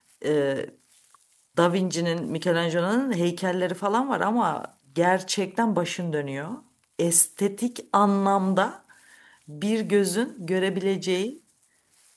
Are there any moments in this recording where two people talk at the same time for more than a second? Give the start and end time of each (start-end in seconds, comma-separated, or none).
none